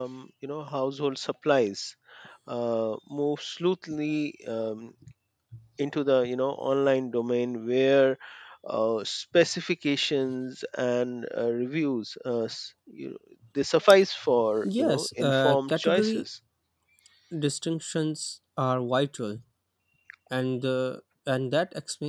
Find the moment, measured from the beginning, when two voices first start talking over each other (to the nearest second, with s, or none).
15 s